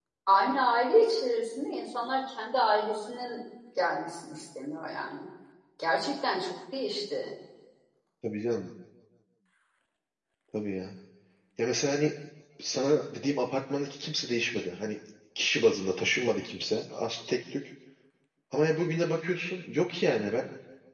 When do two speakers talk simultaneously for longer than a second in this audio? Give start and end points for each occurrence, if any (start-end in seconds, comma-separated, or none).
none